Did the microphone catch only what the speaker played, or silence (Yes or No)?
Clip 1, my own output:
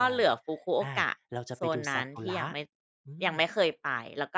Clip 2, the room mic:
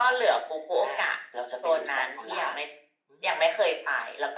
Yes